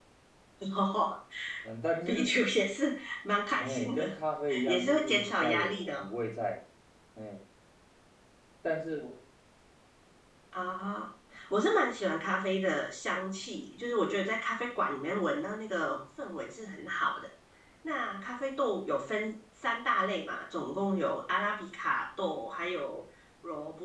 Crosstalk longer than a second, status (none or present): present